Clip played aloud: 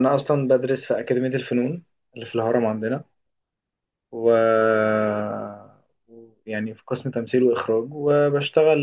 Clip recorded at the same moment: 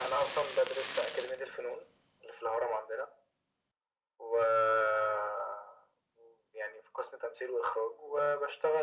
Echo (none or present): present